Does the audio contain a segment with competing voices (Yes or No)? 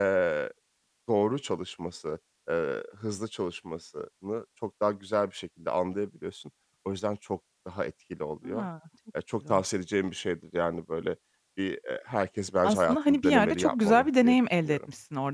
Yes